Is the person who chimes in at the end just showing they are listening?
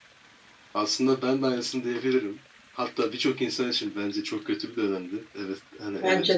Yes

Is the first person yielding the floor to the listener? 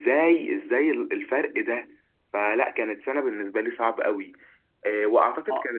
No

